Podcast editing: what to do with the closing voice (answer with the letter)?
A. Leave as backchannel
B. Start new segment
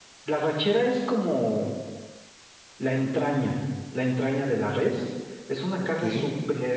A